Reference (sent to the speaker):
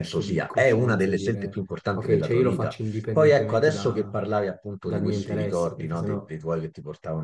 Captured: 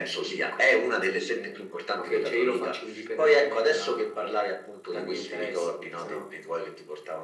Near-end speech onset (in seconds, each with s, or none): none